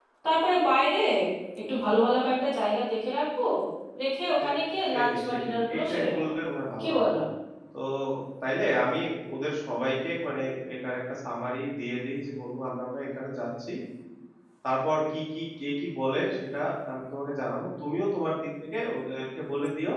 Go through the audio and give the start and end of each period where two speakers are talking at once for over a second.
4.9-6.3

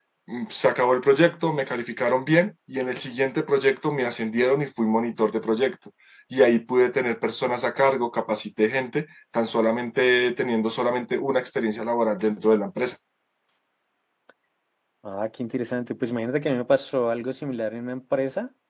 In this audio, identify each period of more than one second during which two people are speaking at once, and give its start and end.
none

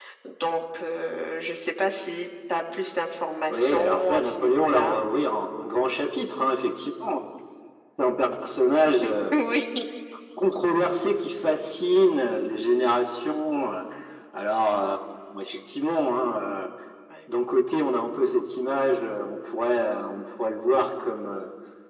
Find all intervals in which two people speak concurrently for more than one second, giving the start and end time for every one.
3.5-5.0

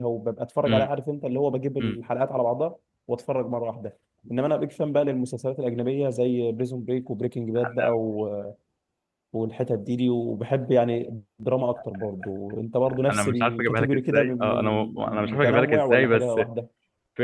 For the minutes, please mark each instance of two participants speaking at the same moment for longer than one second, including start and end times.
13.1-16.4

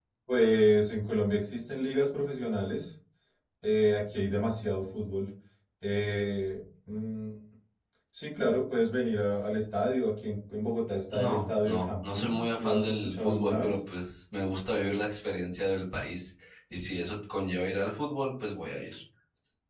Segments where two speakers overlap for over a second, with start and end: 11.1-13.8

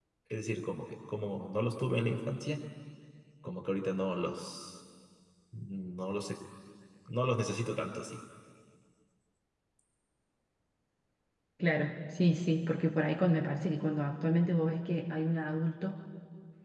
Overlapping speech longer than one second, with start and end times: none

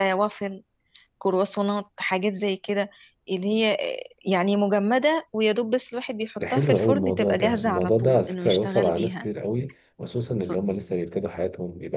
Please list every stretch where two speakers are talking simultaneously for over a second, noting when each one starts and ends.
6.4-9.3

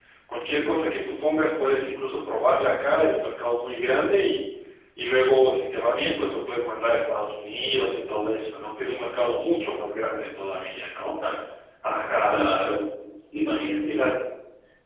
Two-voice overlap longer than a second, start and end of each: none

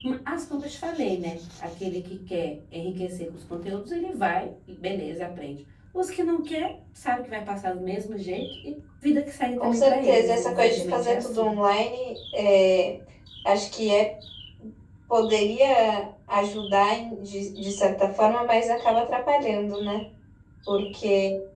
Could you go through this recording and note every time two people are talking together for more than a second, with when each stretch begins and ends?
9.6-11.5

